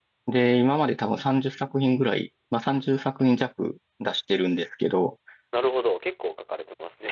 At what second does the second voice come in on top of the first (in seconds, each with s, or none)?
none